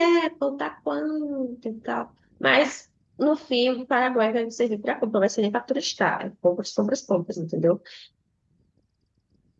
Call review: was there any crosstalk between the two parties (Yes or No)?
No